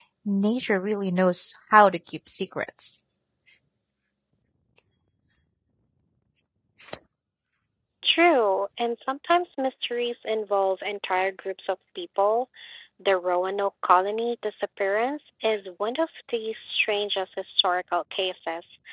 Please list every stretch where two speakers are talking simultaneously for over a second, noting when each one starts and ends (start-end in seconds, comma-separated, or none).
none